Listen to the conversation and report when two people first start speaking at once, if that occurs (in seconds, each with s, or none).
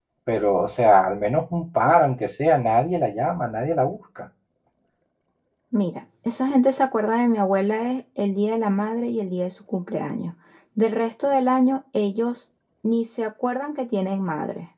none